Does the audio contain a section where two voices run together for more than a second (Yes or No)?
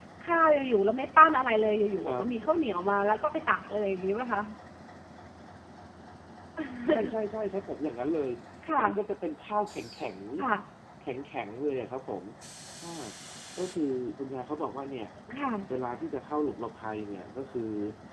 No